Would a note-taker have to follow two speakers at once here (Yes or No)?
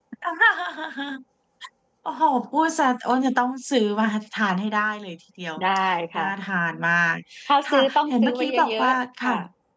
Yes